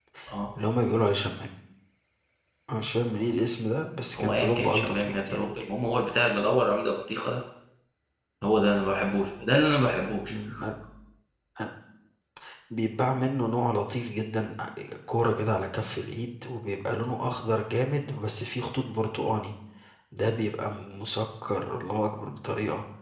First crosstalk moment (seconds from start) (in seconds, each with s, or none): 4.2 s